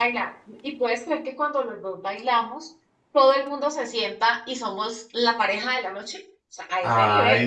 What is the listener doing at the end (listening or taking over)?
taking over